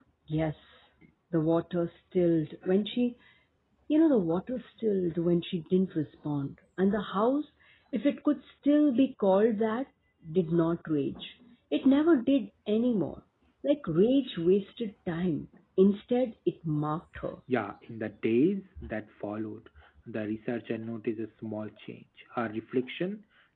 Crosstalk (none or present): none